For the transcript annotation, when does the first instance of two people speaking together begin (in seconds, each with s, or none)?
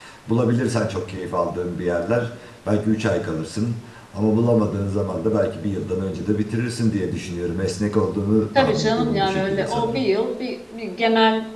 8.6 s